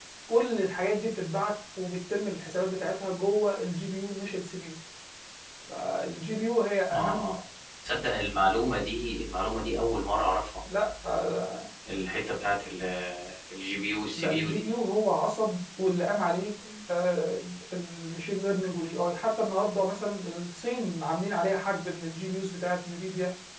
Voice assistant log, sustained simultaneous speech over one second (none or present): none